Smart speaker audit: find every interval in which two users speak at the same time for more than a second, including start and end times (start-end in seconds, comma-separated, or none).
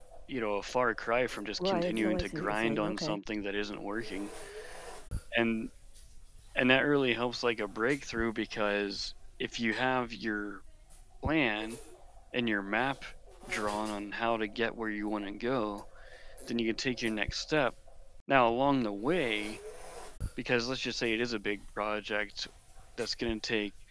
1.6-3.2